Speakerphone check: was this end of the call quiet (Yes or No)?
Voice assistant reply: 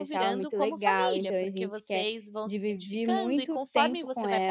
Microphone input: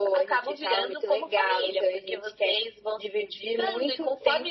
Yes